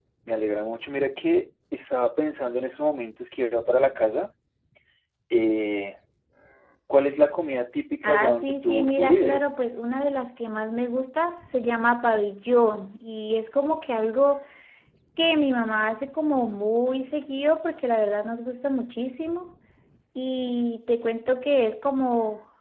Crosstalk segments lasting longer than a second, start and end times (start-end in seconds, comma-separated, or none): 8.0-9.5